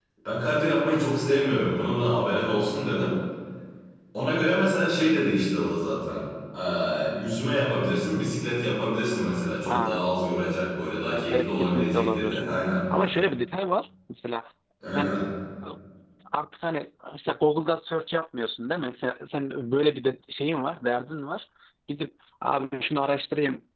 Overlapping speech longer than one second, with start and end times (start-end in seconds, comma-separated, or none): 11.1-12.4